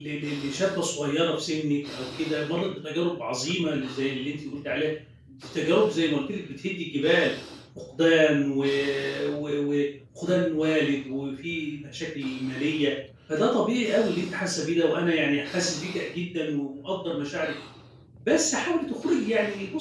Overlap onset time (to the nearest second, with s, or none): none